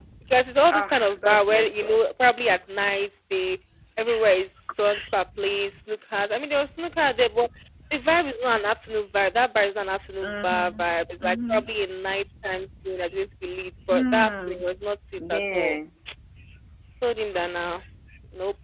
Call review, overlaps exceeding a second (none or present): present